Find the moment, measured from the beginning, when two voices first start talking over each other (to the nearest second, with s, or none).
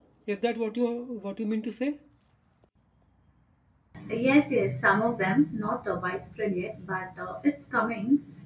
none